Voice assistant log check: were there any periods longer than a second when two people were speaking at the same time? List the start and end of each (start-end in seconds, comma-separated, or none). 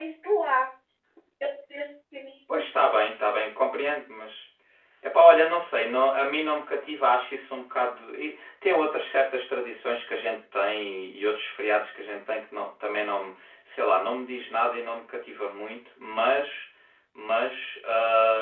none